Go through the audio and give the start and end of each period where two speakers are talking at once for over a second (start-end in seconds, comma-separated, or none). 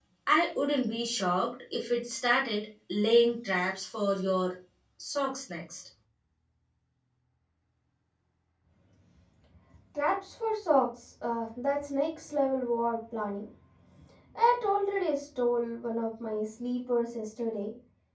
none